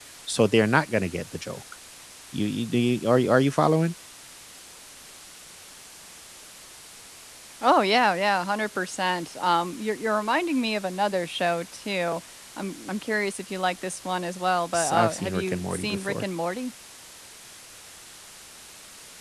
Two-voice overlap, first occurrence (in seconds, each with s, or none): 14.7 s